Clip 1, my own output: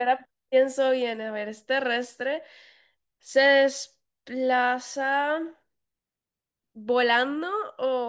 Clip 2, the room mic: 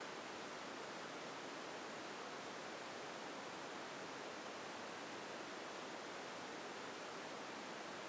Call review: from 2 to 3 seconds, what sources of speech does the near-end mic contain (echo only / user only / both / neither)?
neither